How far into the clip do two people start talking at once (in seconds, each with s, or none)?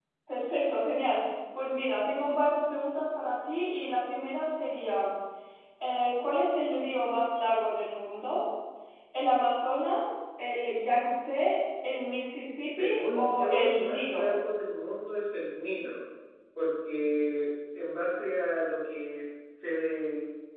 12.7 s